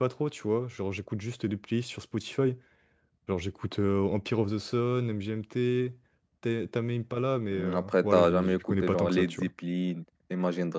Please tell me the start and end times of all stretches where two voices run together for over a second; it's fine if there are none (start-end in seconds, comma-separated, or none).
7.5-9.5